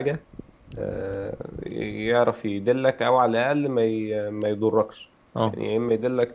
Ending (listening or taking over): listening